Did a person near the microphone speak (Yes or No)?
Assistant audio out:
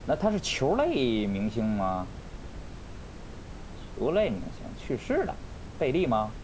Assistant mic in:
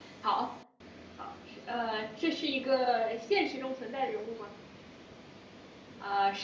Yes